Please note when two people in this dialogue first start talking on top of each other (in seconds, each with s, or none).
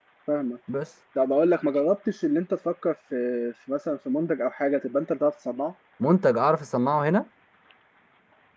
none